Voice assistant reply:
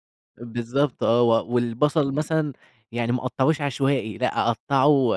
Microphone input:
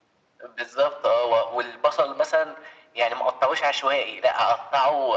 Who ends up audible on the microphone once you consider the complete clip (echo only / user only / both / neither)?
echo only